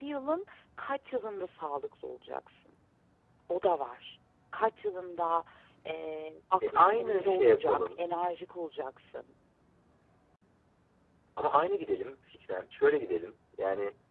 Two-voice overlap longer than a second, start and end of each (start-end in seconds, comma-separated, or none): 6.7-8.0